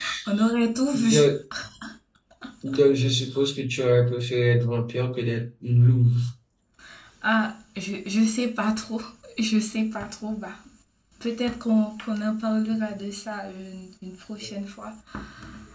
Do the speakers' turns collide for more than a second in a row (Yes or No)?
No